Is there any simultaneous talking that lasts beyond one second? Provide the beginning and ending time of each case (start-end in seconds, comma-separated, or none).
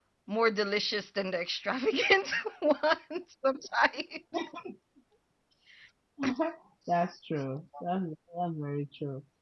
none